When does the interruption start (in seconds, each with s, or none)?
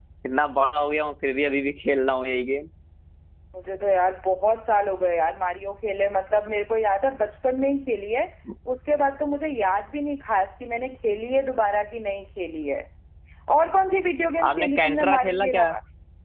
14.5 s